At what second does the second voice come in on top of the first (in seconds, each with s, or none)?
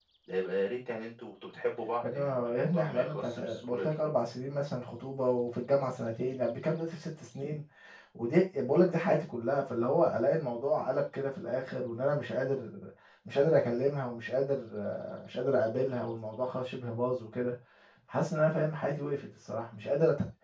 2.0 s